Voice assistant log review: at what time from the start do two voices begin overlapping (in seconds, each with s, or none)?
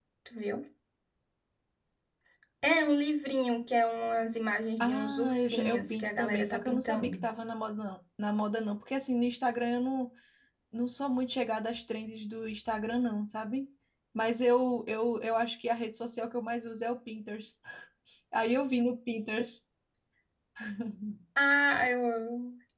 4.8 s